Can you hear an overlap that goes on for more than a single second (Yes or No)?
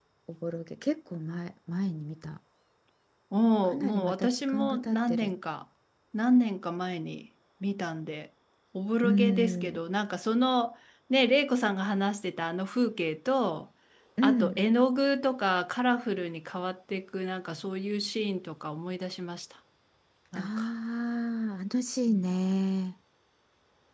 Yes